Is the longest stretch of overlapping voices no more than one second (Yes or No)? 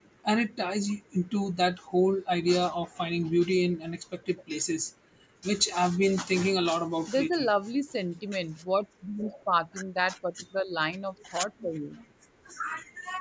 Yes